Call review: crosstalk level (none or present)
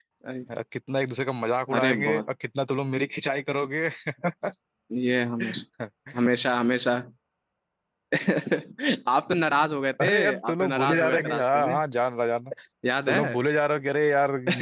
present